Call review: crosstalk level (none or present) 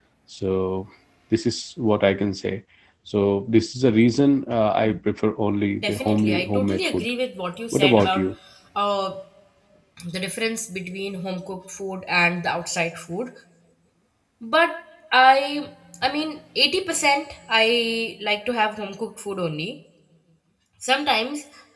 present